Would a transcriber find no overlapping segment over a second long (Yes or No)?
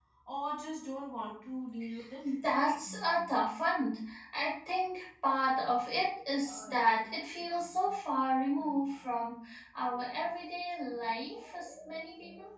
Yes